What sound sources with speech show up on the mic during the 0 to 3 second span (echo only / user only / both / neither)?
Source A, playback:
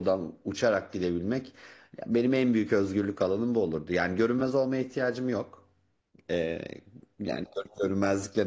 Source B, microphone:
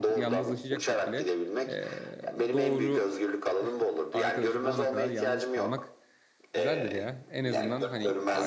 both